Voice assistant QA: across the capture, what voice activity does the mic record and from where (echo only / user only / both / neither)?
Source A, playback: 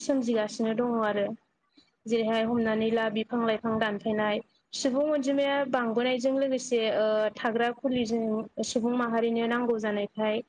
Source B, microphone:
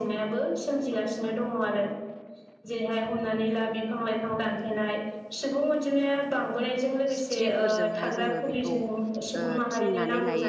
both